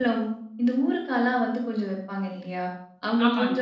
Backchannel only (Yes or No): Yes